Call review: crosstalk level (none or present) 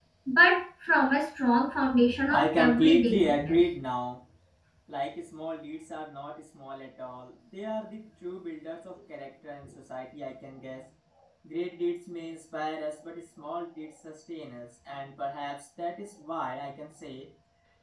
present